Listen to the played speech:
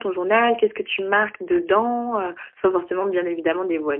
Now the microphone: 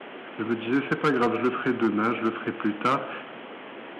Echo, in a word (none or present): none